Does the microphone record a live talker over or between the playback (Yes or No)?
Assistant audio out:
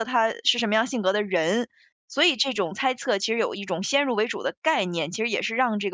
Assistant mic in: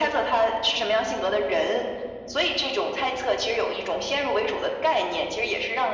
No